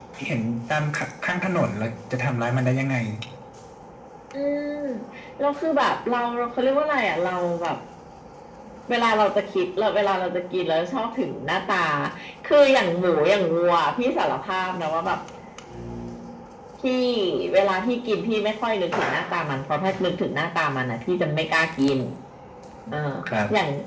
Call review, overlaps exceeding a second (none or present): none